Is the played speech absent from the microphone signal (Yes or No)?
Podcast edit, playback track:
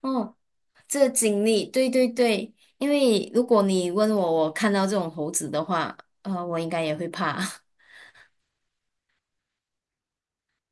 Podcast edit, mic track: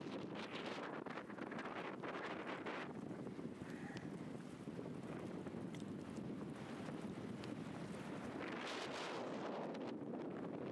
Yes